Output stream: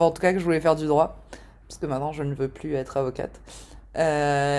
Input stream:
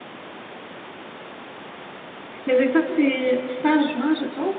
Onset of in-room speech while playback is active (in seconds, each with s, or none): 2.4 s